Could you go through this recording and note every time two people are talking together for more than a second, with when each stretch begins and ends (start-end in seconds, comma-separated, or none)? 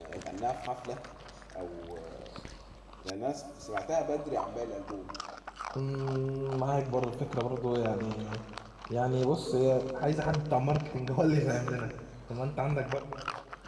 none